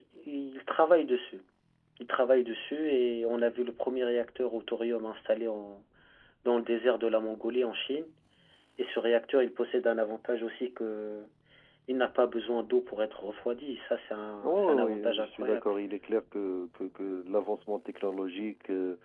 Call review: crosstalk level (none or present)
present